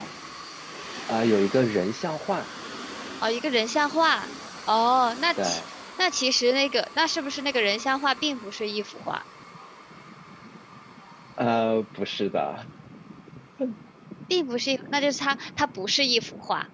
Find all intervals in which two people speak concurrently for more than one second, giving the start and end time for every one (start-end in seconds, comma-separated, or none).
none